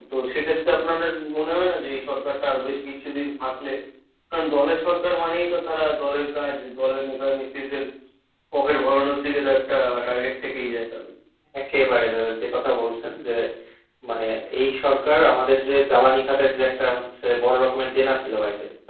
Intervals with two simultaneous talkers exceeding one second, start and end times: none

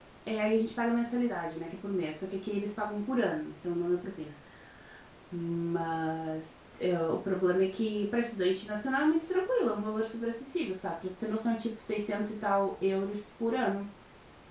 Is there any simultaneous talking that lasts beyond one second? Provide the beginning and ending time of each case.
none

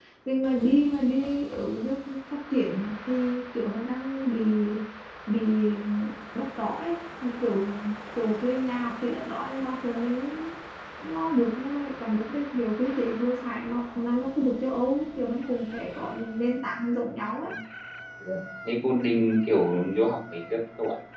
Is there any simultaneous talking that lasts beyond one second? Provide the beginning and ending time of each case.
none

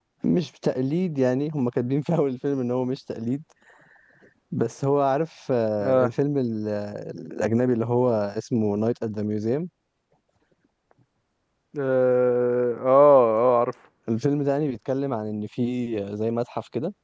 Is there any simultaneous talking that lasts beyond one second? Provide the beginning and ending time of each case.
none

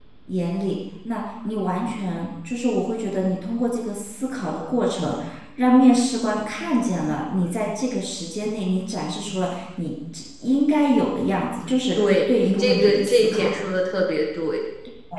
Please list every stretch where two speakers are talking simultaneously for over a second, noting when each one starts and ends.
12.0-13.5

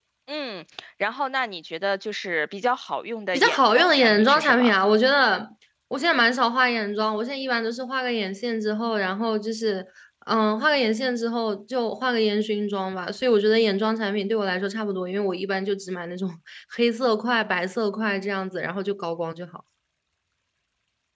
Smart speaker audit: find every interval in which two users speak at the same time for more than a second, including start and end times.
3.3-4.7

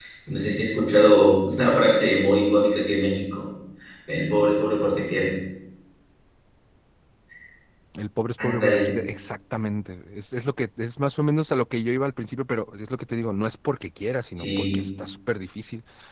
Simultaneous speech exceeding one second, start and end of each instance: none

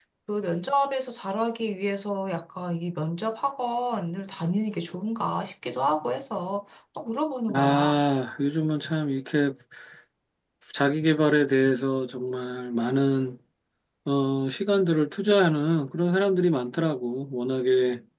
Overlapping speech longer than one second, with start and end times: none

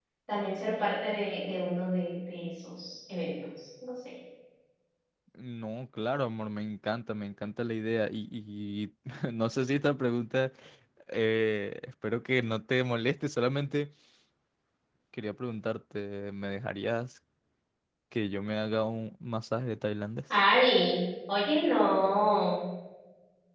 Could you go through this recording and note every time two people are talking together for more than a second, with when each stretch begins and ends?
none

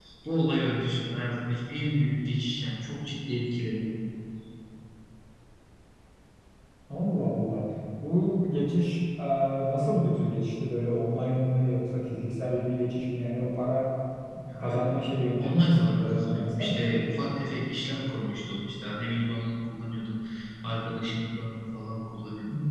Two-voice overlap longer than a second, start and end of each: 15.4-16.8

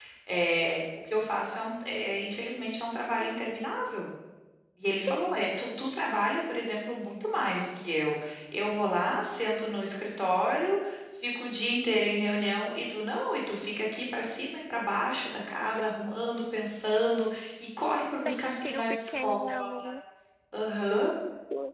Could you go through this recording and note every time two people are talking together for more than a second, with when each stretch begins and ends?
18.2-19.7

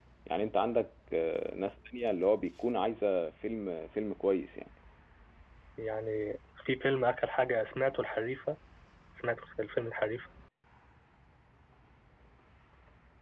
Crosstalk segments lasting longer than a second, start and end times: none

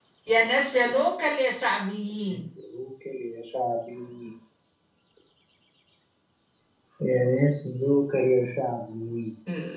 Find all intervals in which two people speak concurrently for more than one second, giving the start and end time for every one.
none

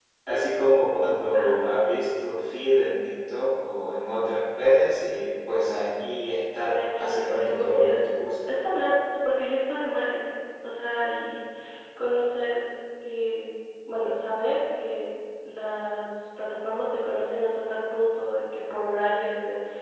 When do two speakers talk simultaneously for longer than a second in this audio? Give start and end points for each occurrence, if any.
6.6-8.5

